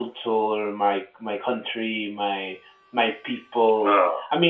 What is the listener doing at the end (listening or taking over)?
listening